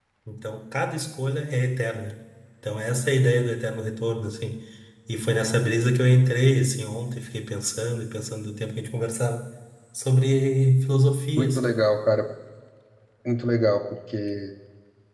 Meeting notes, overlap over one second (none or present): none